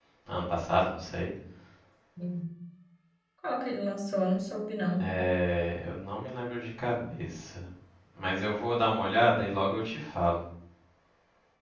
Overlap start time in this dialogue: none

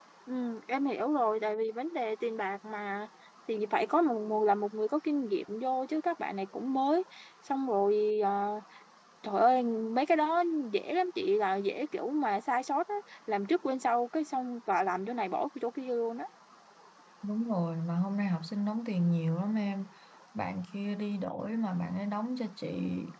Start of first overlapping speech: none

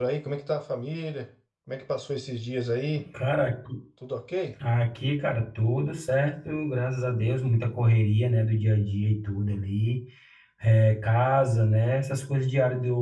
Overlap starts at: none

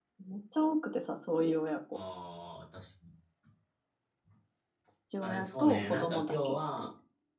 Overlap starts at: 5 s

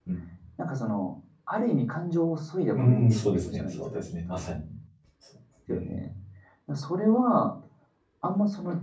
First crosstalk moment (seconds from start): 3 s

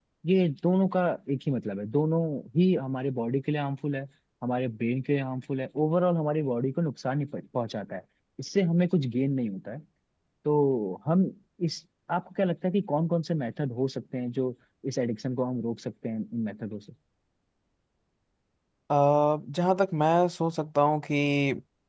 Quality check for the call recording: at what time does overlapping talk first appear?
none

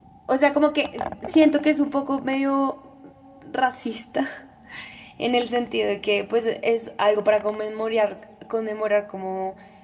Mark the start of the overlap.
none

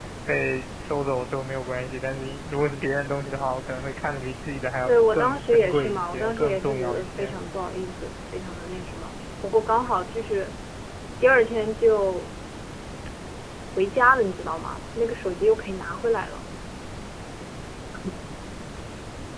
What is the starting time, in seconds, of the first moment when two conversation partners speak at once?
5 s

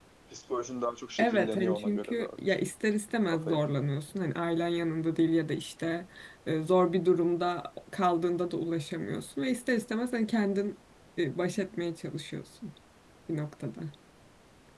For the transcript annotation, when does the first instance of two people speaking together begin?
1 s

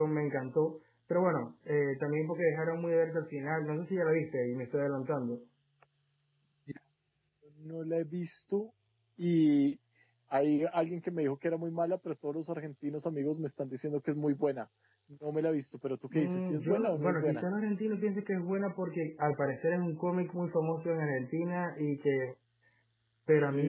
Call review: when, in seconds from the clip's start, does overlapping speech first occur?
16 s

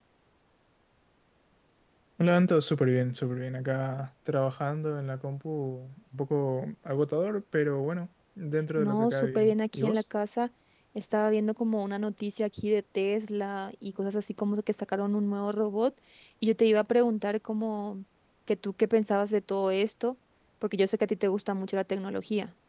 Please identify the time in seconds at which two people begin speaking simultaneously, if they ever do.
9 s

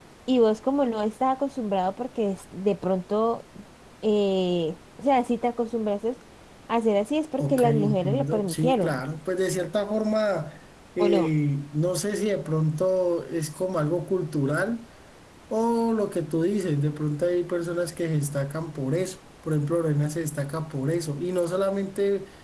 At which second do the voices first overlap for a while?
7 s

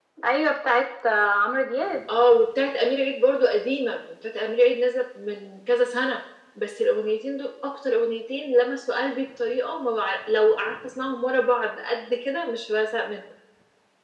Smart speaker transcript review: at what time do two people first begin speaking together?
none

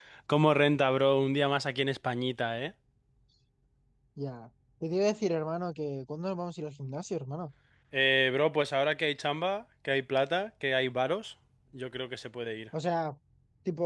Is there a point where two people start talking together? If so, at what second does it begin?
none

